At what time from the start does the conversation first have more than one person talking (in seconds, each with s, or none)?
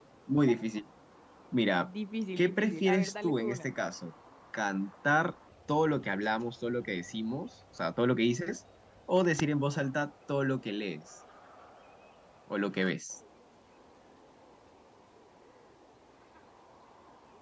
2.4 s